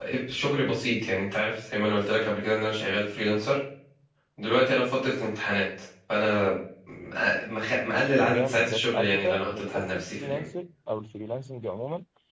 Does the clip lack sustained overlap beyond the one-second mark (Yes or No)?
No